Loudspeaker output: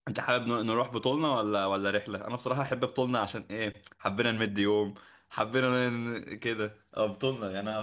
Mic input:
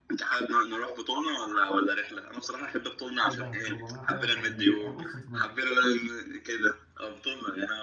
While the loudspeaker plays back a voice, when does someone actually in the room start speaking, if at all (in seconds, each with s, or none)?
3.2 s